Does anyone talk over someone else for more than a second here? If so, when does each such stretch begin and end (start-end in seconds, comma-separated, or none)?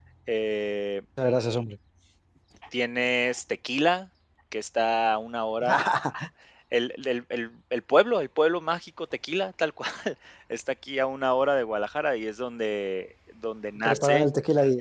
none